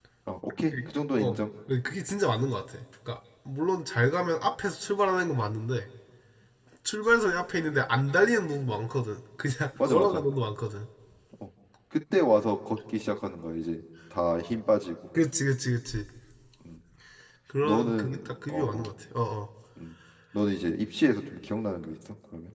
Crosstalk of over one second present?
Yes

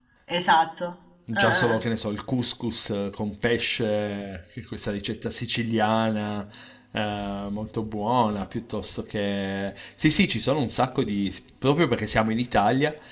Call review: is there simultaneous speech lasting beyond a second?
No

